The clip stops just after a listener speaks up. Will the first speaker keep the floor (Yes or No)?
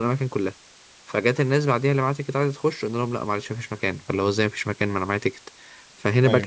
Yes